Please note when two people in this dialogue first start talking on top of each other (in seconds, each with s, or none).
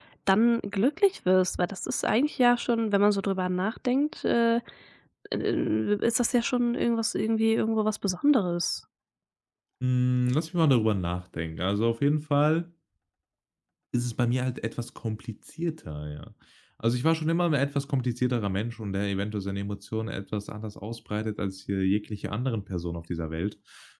none